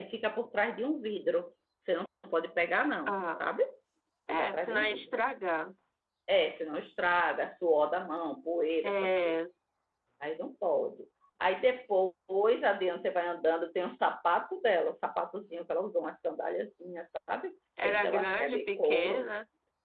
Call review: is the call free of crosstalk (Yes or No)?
No